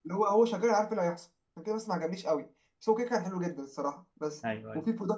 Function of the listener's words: listening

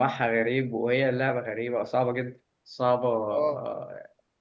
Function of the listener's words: listening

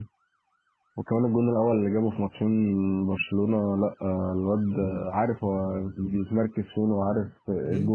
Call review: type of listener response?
taking over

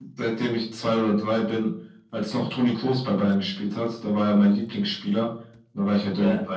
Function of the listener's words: listening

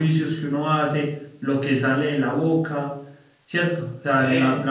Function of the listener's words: listening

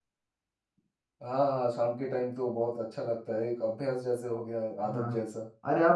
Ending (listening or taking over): taking over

